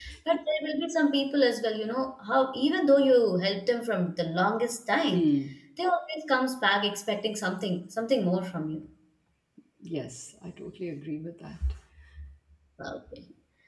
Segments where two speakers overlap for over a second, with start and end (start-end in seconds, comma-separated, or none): none